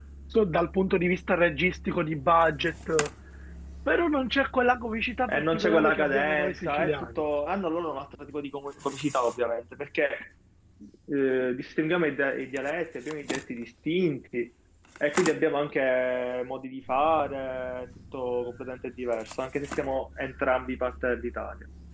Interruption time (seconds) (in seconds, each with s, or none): 5.3 s